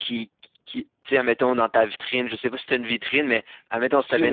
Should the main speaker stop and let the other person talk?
No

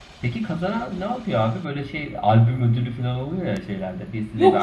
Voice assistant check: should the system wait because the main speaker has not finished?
No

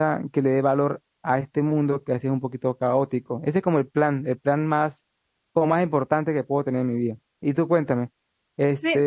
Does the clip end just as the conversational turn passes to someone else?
Yes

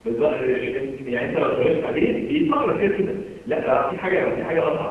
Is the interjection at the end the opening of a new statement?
No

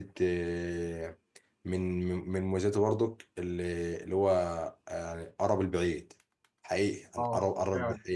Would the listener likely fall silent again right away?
Yes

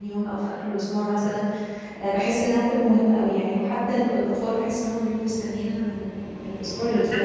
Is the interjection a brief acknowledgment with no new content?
No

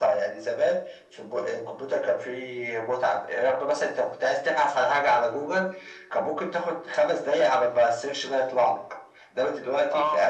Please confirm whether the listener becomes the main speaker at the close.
No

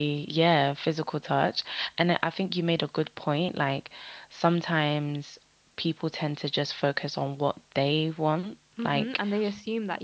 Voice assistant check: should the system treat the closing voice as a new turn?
Yes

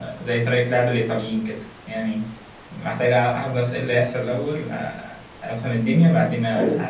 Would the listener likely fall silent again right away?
Yes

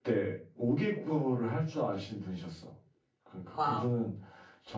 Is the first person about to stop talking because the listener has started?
No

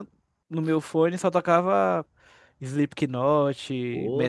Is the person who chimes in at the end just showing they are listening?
No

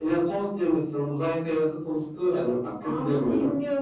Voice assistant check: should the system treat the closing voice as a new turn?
Yes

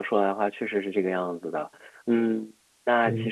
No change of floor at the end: Yes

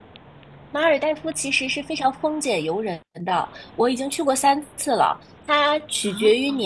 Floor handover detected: No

